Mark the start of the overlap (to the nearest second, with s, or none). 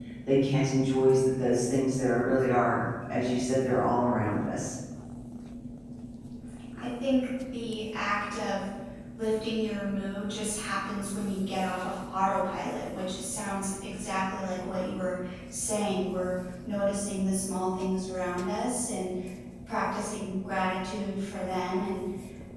none